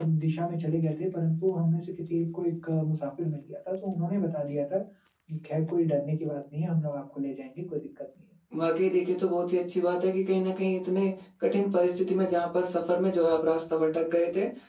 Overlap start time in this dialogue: none

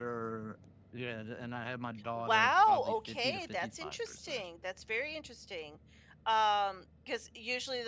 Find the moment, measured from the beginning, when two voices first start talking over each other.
2.2 s

